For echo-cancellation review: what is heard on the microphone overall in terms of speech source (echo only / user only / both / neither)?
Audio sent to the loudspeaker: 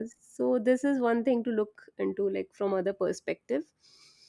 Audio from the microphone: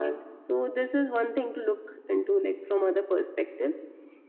echo only